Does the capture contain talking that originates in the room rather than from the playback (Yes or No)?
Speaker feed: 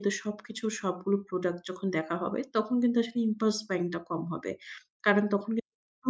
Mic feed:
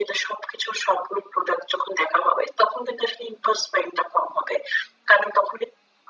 No